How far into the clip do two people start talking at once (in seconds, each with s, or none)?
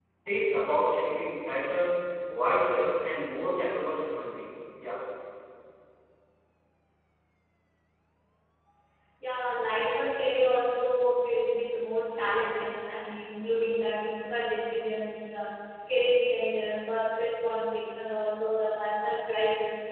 none